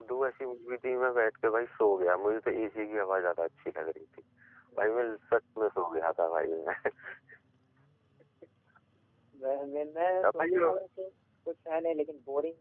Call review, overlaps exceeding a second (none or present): none